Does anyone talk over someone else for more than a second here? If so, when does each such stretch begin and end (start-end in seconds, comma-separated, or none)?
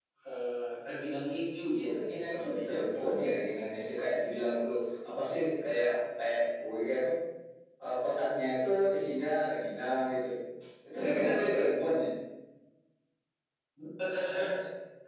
1.8-3.1